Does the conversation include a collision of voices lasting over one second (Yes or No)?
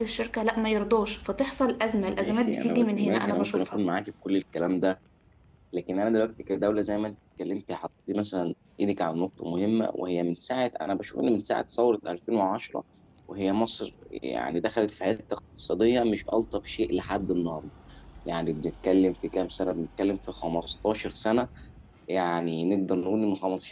Yes